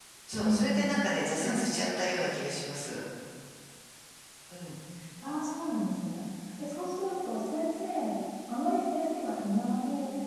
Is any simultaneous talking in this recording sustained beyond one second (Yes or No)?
No